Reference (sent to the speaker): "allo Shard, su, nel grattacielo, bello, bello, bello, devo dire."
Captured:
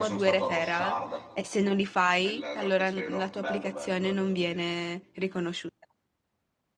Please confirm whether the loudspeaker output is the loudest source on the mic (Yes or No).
No